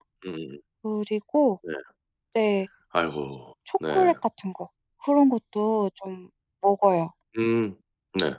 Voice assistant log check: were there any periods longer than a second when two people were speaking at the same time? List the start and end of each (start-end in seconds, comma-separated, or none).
none